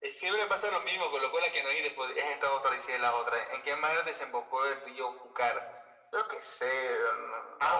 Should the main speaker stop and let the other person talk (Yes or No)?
Yes